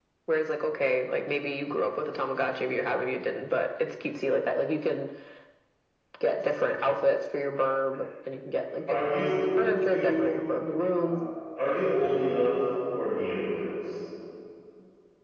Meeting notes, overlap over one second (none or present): present